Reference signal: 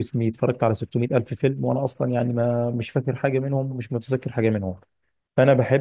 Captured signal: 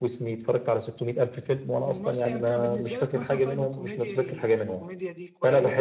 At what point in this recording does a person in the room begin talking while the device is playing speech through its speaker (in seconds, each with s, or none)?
1.8 s